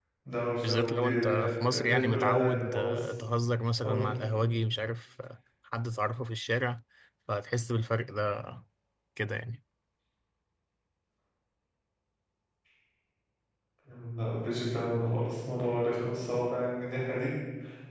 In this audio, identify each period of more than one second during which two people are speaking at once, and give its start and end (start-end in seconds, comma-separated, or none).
0.6-3.1